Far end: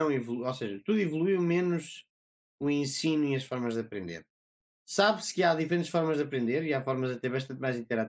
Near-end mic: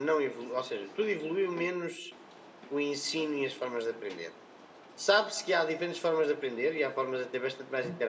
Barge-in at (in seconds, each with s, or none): none